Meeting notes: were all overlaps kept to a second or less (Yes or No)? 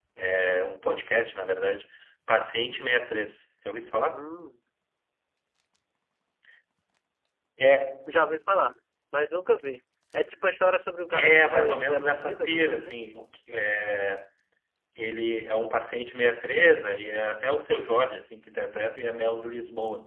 No